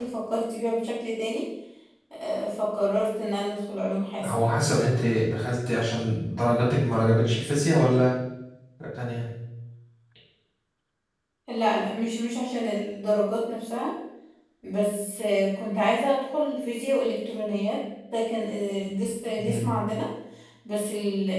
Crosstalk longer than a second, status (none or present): none